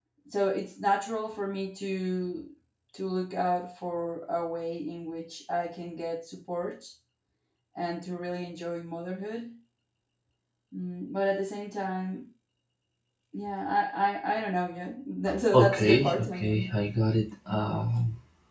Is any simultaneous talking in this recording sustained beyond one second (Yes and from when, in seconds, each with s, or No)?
Yes, from 15.5 s